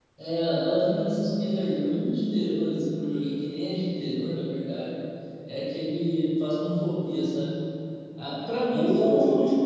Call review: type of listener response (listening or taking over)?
listening